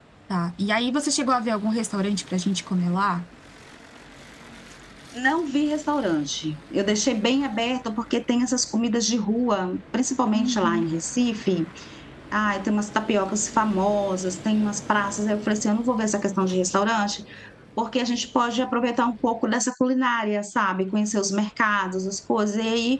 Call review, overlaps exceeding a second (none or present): none